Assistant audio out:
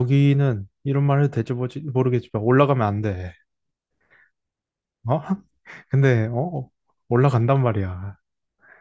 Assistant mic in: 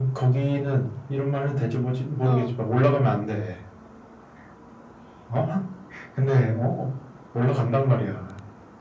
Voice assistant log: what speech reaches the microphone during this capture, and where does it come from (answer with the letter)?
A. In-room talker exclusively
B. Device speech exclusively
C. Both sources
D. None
C